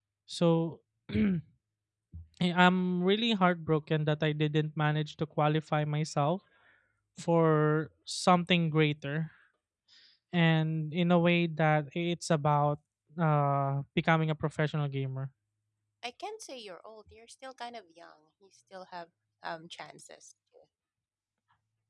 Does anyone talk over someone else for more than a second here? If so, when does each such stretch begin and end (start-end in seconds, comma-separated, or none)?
none